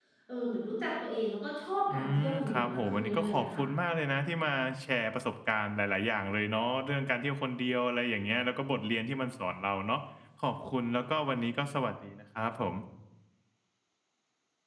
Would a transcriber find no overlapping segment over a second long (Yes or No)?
No